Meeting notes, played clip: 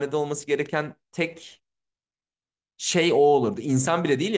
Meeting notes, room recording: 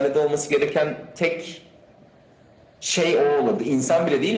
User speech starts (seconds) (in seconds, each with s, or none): none